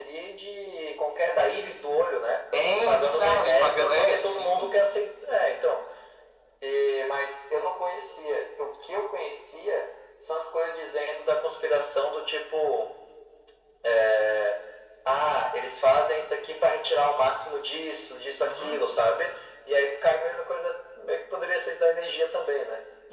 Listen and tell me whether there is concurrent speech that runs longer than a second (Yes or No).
Yes